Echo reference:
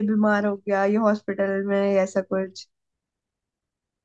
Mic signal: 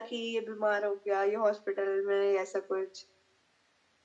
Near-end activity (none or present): none